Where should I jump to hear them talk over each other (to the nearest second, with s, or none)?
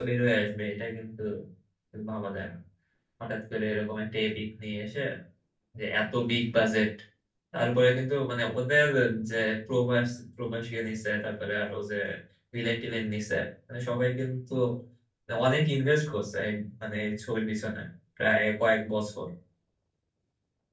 none